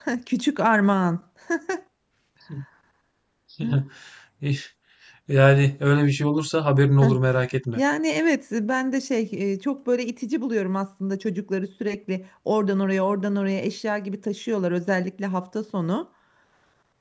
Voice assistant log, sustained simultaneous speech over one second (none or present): none